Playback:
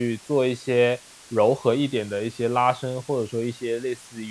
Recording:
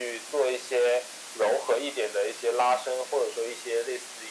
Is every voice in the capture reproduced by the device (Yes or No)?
Yes